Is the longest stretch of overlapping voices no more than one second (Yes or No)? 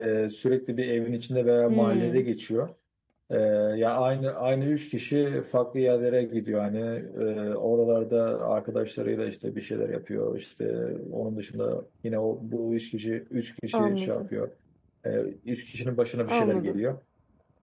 Yes